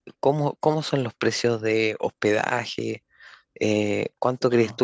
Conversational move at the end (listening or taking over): listening